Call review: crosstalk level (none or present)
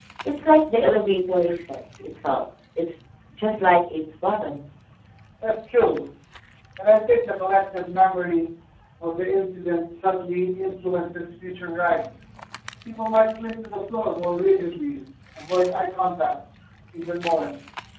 none